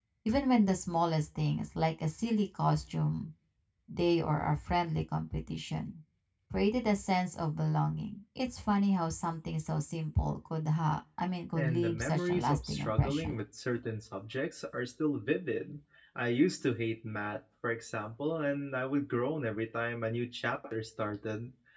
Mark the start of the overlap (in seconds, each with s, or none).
11.6 s